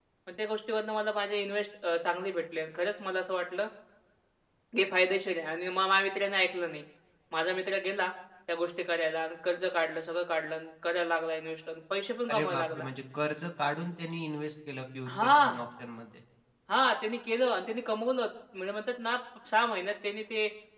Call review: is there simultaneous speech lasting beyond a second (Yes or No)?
No